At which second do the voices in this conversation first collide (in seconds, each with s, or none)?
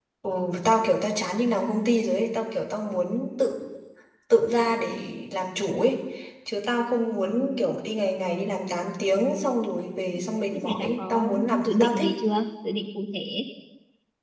10.2 s